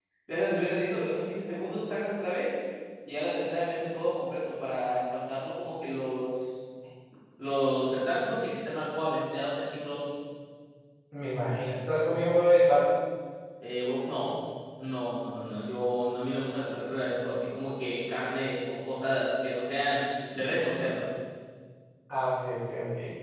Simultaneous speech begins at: none

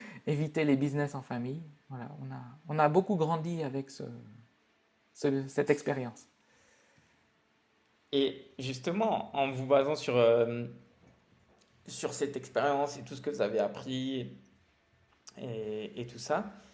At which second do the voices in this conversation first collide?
none

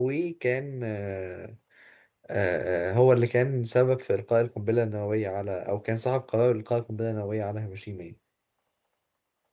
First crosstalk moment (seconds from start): none

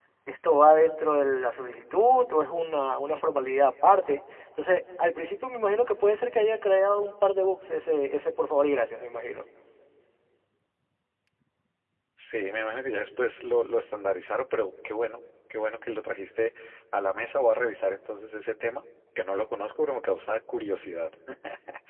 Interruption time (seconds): none

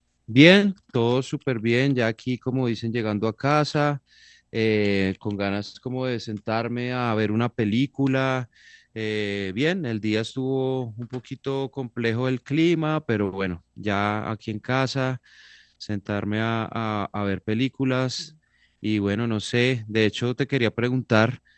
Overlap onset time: none

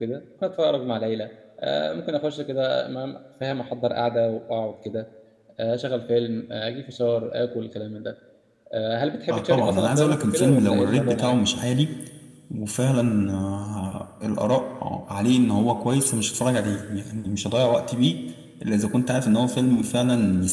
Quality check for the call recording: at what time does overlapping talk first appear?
9 s

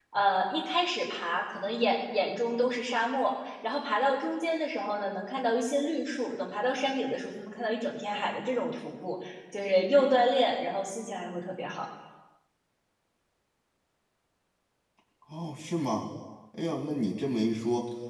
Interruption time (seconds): none

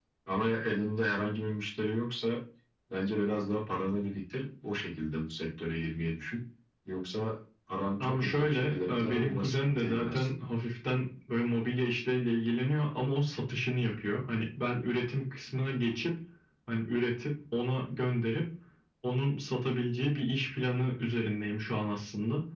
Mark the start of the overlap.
8 s

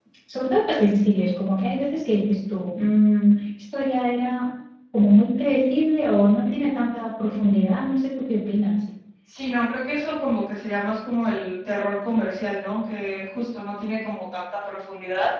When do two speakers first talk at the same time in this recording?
none

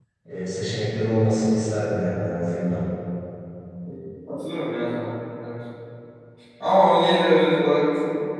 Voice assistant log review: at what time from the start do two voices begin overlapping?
none

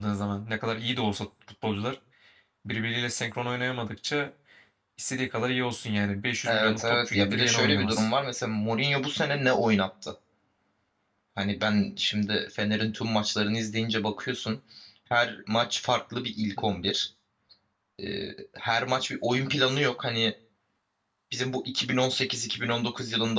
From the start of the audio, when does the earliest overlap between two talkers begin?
6 s

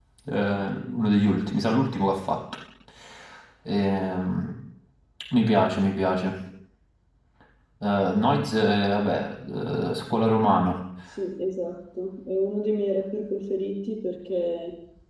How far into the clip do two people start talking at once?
none

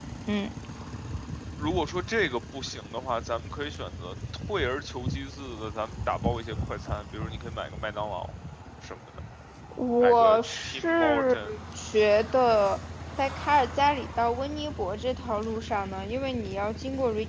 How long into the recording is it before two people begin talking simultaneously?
10 s

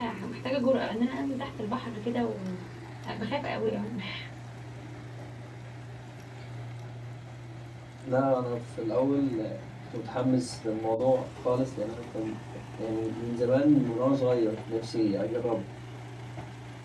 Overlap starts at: none

